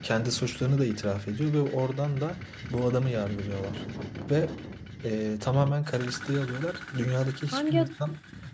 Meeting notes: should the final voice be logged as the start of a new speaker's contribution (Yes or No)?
No